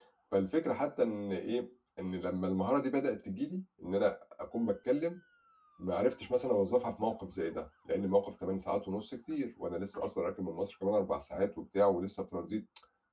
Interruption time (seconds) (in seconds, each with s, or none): none